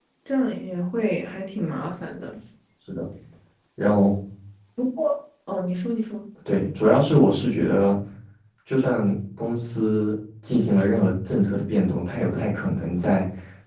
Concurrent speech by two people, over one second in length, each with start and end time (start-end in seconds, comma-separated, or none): none